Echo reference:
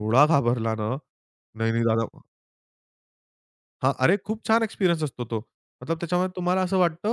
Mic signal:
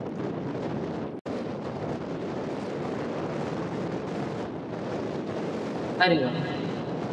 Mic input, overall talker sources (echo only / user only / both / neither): user only